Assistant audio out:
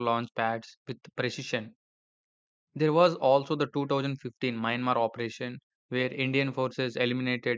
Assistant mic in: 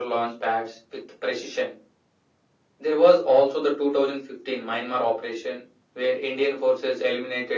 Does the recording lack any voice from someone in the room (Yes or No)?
Yes